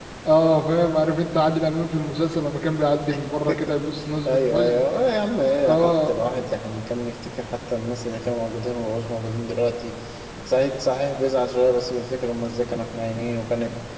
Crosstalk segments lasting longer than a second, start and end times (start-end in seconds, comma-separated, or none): none